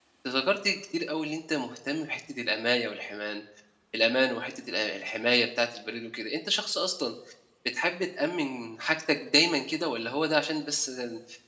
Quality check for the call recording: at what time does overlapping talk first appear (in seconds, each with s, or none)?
none